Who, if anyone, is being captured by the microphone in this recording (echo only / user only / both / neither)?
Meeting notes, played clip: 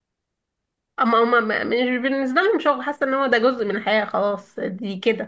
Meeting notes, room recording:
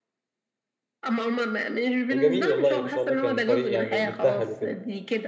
both